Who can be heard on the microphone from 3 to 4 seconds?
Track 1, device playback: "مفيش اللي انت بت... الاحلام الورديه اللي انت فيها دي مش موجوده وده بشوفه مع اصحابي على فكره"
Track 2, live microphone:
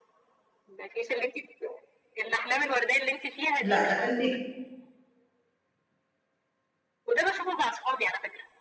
both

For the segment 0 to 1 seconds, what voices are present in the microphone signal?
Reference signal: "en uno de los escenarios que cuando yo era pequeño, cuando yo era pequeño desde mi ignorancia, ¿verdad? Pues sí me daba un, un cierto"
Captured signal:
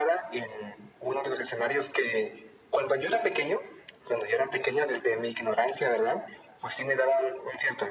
echo only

